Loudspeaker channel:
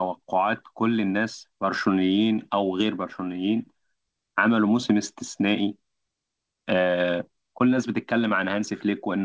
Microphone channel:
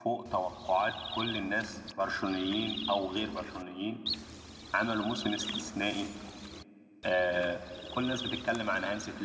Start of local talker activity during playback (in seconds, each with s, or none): none